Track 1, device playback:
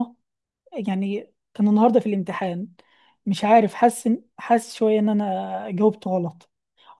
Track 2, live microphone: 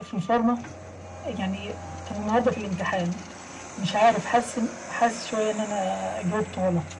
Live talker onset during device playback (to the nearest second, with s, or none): none